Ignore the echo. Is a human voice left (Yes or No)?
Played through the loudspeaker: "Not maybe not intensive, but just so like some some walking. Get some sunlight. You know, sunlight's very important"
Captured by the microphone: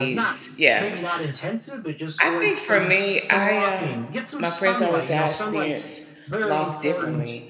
Yes